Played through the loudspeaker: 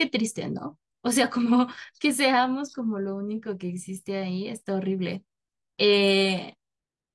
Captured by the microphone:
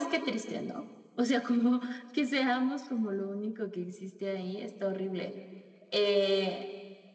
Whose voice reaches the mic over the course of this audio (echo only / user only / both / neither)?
echo only